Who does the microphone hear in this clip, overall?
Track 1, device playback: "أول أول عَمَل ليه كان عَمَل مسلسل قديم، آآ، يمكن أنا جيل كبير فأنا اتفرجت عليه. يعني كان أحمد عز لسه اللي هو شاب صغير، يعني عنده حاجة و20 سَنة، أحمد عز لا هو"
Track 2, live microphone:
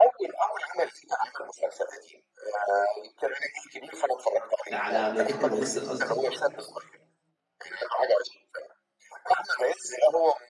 both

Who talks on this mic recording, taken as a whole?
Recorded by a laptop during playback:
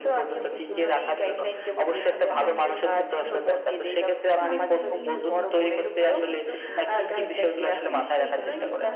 both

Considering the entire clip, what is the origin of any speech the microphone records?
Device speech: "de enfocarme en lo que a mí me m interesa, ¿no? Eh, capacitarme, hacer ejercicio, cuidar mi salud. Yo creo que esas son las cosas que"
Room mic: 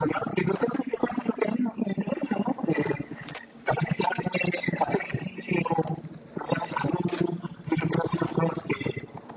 echo only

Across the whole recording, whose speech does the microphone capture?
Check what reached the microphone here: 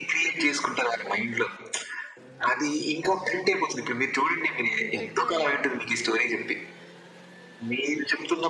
both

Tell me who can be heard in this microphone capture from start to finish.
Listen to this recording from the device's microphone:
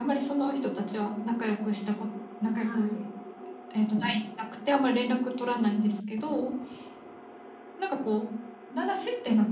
both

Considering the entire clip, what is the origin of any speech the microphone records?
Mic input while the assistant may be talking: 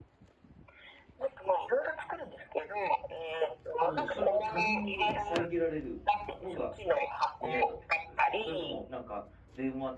both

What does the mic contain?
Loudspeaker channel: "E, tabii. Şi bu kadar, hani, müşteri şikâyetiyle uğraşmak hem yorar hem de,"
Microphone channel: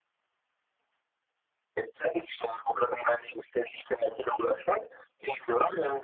echo only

